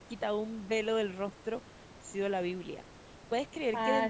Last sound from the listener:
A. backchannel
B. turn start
A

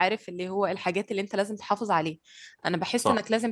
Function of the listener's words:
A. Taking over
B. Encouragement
B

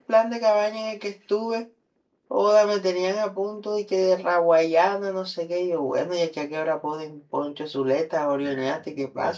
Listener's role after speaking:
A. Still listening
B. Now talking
B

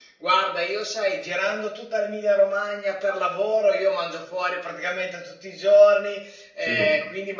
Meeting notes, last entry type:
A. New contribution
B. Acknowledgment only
B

